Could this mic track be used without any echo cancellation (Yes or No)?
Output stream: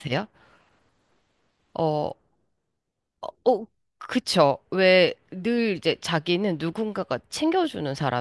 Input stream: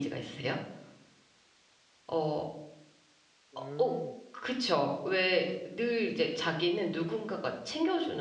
No